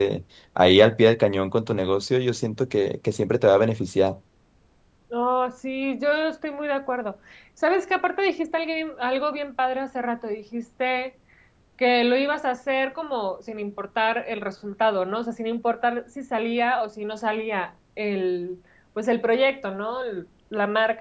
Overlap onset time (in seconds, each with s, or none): none